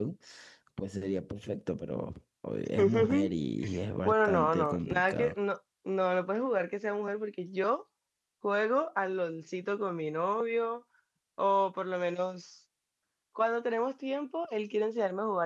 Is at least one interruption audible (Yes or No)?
Yes